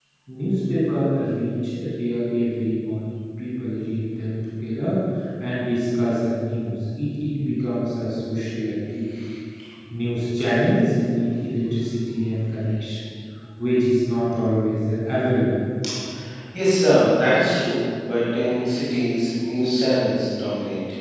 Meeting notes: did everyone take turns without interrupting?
Yes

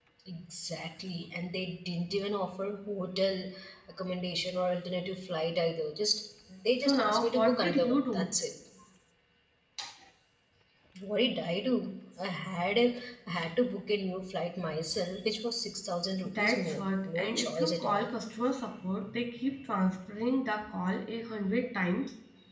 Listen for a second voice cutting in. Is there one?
Yes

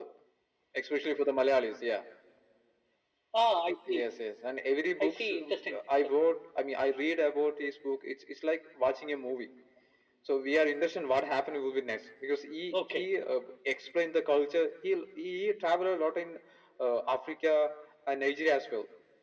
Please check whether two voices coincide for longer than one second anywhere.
No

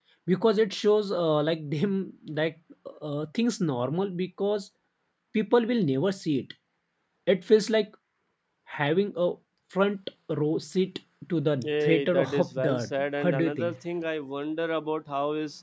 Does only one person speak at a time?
No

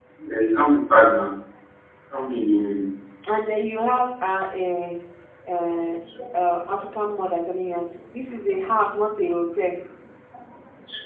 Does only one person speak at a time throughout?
Yes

